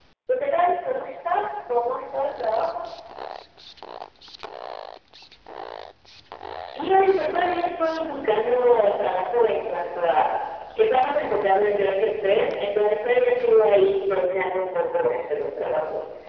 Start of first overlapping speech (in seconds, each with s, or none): none